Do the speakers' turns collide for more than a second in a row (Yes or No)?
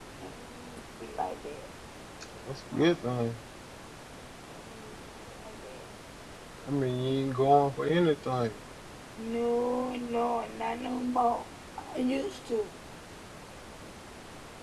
No